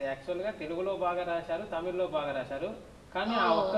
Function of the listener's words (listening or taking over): taking over